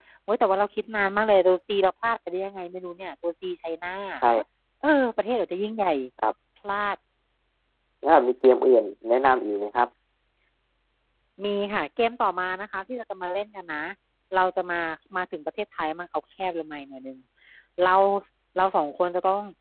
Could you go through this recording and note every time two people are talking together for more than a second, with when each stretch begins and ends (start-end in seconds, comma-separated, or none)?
none